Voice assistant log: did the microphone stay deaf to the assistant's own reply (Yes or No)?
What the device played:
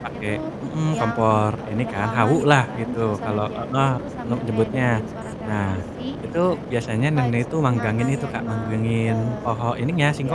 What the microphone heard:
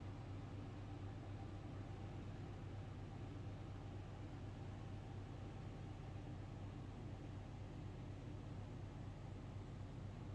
Yes